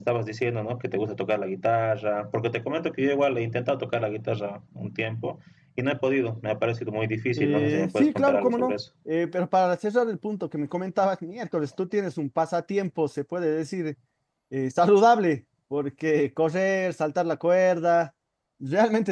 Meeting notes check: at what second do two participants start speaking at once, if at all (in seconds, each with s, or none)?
7.4 s